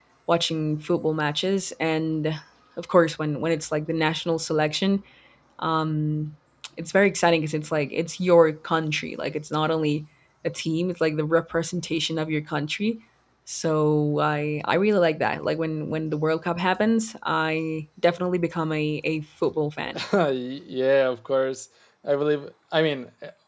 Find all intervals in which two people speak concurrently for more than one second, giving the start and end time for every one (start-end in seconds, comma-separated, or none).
none